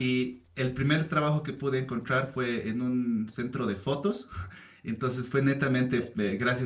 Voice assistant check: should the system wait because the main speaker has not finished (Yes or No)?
Yes